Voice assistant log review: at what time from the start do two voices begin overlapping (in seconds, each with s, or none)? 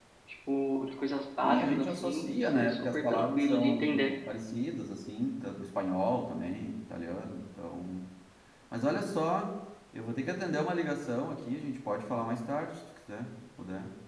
1.4 s